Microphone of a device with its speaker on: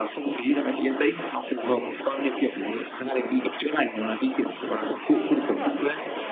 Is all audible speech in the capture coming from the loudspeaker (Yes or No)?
No